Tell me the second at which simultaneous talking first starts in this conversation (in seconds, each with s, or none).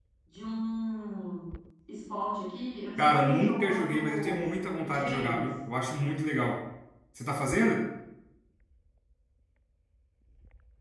3.0 s